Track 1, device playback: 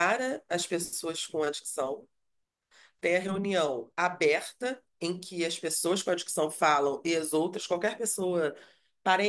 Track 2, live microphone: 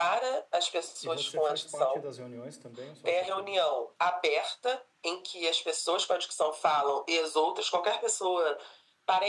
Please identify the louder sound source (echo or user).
echo